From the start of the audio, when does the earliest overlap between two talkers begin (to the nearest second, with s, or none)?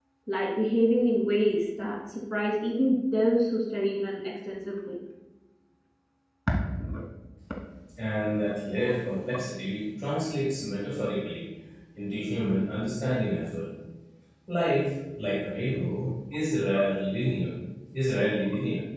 none